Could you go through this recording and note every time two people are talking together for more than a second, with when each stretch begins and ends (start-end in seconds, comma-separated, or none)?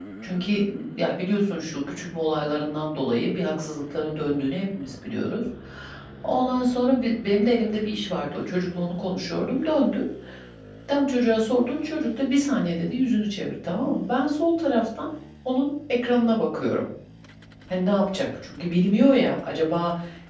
none